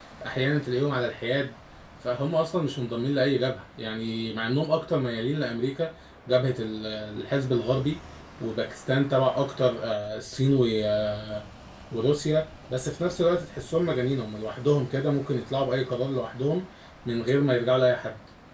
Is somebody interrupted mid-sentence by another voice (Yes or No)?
No